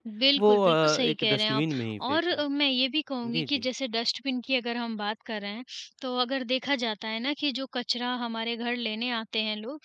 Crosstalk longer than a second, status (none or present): present